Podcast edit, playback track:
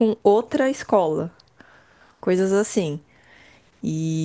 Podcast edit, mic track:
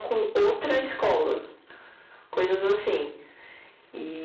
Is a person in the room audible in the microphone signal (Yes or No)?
No